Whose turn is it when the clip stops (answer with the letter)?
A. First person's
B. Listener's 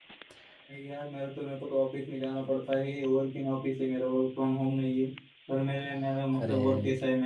A